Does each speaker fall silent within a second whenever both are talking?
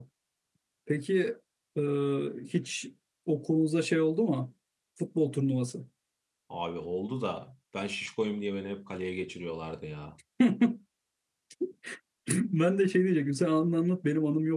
Yes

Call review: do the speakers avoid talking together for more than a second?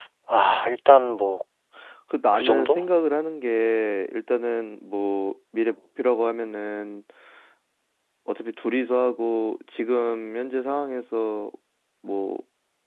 Yes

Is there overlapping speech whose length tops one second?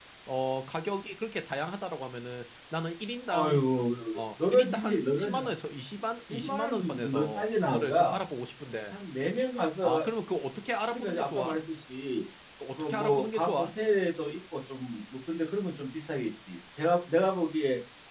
Yes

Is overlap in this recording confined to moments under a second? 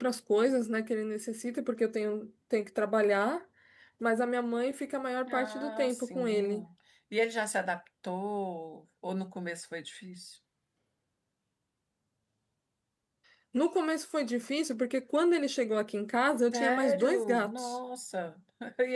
No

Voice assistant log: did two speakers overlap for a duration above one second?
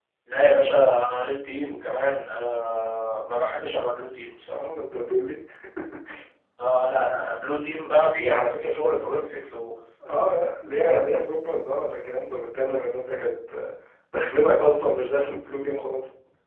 No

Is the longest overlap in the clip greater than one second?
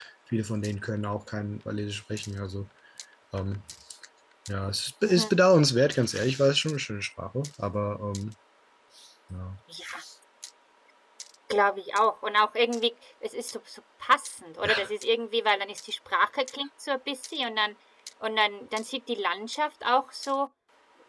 No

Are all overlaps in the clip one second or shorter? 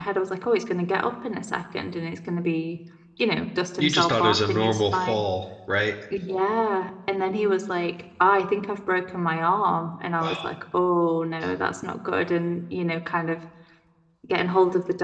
No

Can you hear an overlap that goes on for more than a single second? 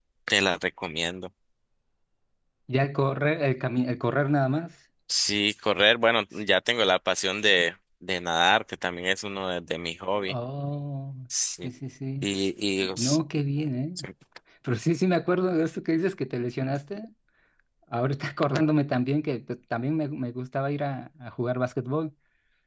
No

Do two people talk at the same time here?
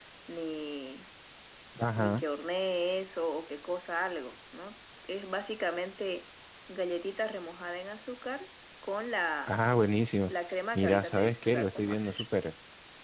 Yes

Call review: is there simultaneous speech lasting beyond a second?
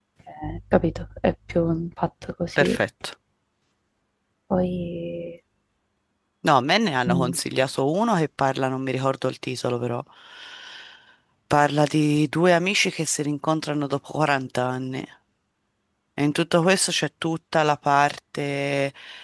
No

